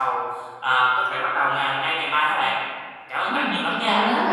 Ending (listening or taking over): taking over